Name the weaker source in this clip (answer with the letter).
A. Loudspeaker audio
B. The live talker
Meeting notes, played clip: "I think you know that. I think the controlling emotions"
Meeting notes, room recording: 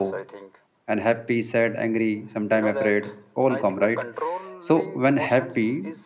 A